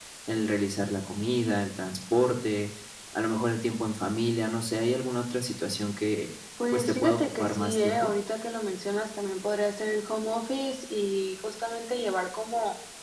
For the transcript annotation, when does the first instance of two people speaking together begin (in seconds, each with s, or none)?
6.7 s